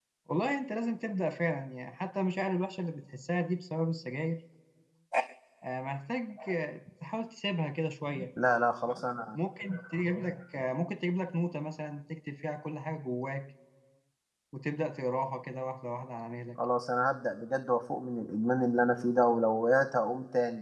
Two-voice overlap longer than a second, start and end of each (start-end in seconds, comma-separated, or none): none